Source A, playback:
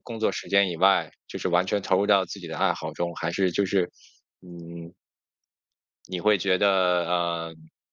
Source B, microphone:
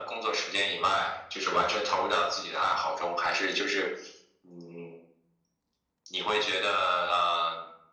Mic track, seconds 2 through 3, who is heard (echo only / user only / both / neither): echo only